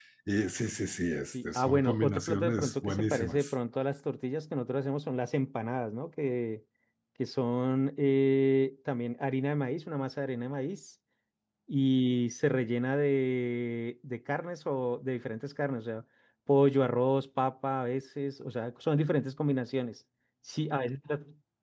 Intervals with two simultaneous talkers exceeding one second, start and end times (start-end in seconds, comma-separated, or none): 1.3-3.5